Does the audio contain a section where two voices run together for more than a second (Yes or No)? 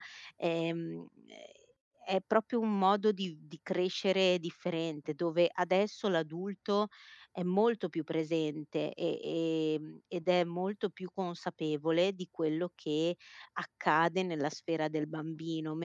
No